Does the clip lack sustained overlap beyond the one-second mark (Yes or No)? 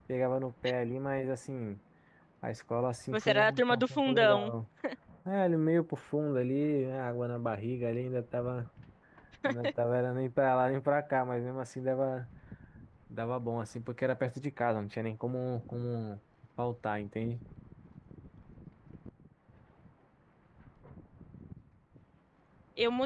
No